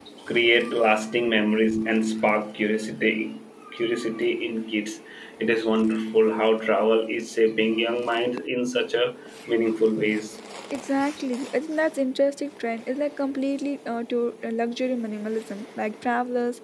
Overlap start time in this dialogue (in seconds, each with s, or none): none